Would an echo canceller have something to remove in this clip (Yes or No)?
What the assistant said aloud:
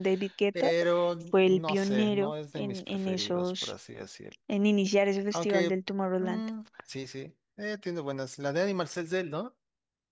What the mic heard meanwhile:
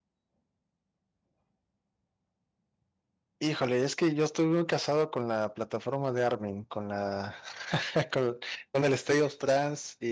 No